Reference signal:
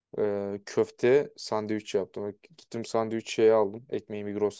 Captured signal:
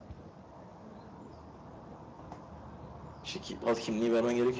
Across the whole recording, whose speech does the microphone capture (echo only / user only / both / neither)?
user only